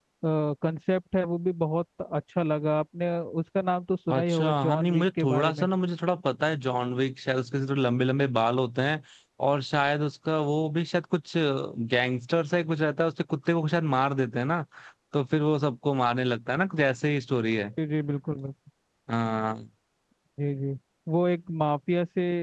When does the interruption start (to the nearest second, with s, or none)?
4 s